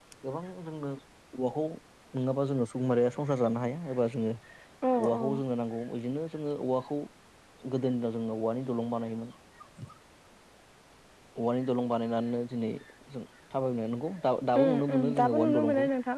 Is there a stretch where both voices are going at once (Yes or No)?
Yes